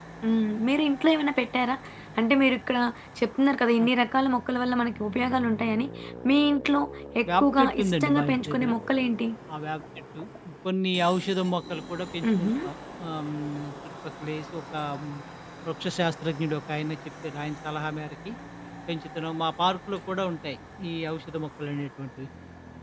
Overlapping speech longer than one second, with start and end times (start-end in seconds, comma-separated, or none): 7.3-8.7